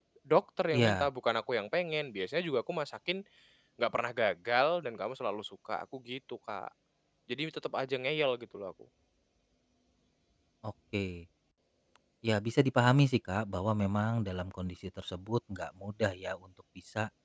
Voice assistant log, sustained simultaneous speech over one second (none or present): none